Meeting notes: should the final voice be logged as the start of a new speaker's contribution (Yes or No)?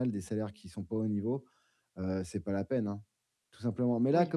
No